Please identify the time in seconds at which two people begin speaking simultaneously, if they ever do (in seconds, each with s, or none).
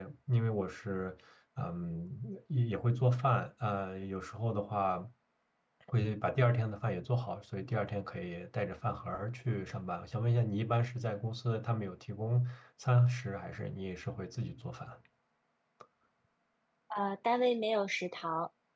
none